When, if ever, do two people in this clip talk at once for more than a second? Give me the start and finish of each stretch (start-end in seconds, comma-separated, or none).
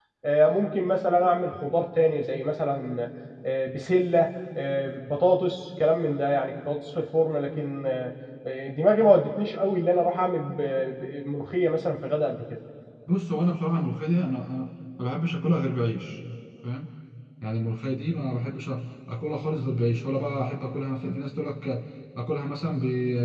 none